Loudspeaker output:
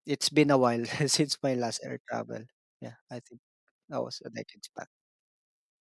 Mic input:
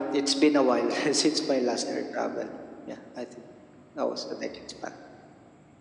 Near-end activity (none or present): none